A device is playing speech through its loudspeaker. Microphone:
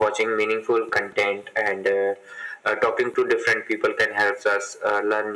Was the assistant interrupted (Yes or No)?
No